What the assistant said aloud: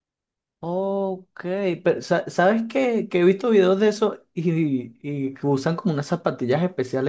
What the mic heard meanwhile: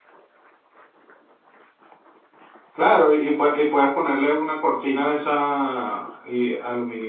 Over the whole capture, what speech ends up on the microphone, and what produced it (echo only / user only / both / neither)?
user only